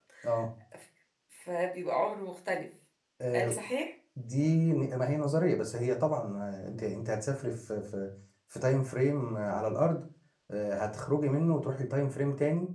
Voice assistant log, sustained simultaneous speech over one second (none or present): none